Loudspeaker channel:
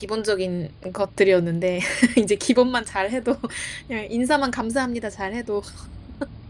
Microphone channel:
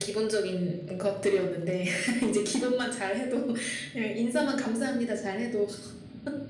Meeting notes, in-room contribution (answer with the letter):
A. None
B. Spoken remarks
A